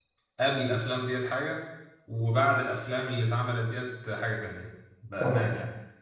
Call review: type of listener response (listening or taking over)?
taking over